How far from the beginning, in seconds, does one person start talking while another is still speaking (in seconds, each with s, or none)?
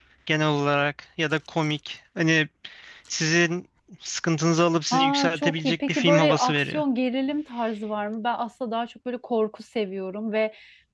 4.9 s